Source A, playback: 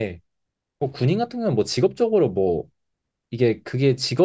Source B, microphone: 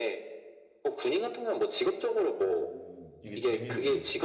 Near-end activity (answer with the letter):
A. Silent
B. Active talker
B